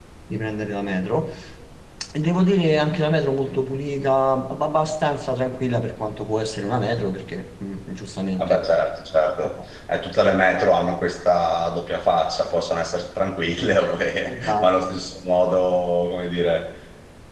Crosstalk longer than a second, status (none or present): none